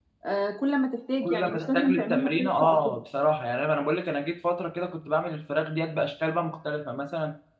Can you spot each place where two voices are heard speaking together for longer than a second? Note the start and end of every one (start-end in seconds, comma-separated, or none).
1.2-3.0